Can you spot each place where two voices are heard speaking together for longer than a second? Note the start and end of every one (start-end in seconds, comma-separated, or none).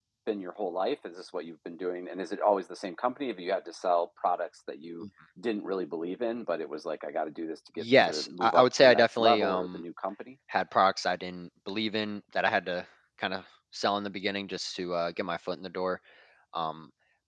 7.8-9.8